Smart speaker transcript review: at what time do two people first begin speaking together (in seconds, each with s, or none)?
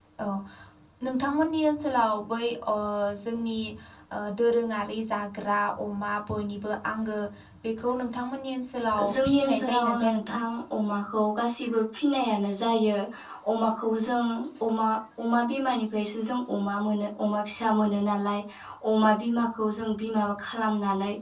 9.0 s